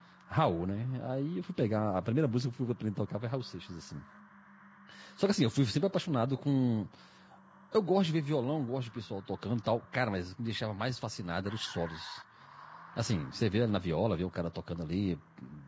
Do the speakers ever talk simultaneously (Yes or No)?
No